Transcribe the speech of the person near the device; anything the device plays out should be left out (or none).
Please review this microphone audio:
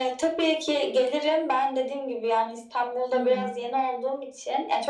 Hı hı.